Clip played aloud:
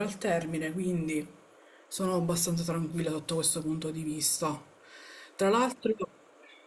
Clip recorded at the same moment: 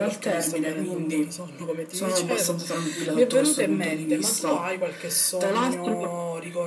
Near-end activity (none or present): present